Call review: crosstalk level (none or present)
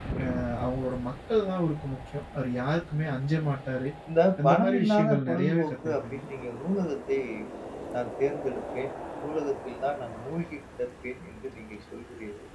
present